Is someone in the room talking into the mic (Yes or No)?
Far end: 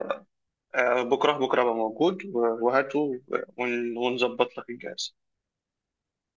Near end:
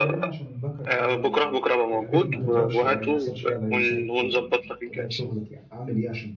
Yes